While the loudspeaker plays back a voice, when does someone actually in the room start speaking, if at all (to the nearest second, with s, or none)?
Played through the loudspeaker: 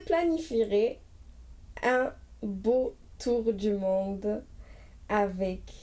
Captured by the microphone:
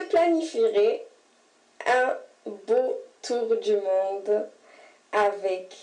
none